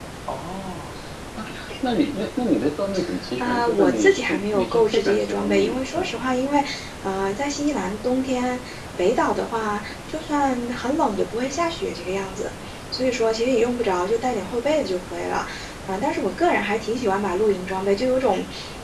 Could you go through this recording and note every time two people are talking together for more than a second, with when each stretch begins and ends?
3.4-6.2

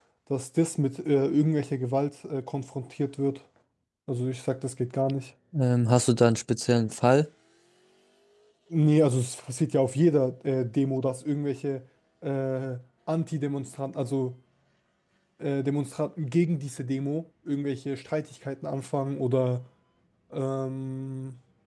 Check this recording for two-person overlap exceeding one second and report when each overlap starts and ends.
none

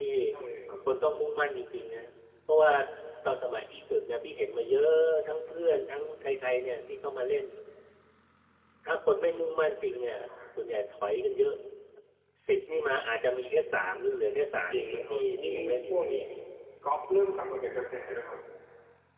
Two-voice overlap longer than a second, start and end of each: 14.7-16.0

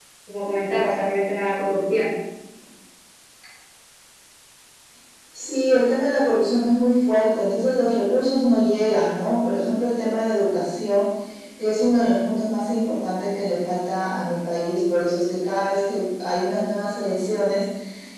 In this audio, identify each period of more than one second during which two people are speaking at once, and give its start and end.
none

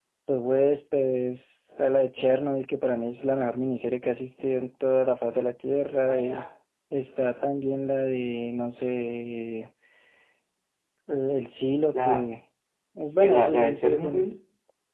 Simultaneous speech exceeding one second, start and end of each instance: 13.1-14.3

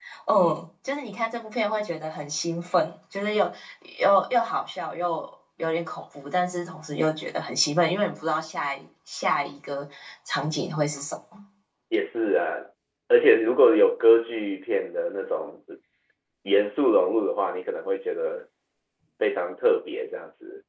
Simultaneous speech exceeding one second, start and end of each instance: none

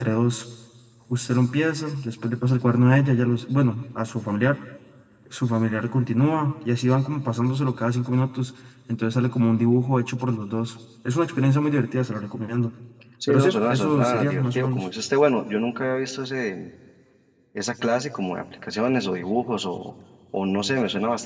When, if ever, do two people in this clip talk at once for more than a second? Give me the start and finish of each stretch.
13.3-14.9

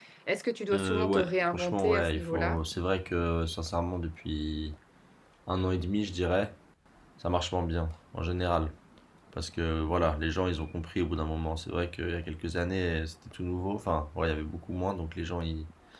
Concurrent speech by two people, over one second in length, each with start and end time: 0.7-2.6

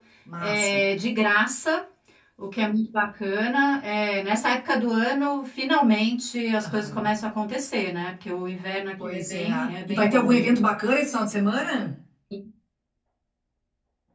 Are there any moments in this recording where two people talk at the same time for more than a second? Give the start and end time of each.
9.0-10.6

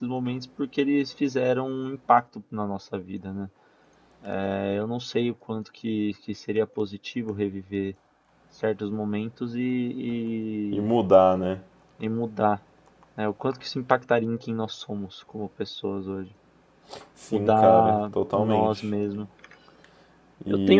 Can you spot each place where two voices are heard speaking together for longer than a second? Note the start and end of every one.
17.3-18.7

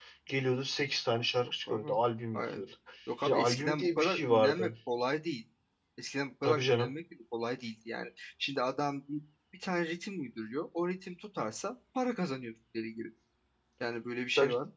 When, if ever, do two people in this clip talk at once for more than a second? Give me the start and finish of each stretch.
3.2-4.7

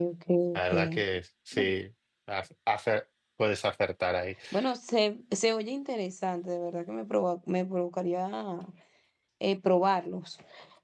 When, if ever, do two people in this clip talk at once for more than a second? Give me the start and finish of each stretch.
none

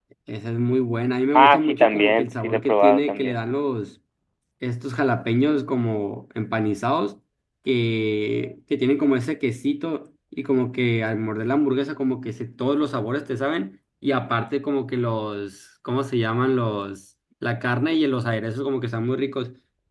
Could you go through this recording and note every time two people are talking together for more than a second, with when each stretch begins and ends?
1.3-3.4

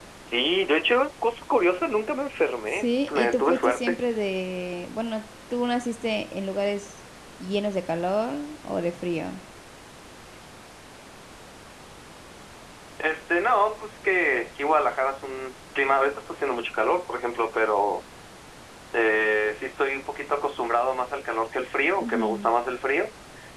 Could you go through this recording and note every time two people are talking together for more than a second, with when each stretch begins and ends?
2.7-4.0

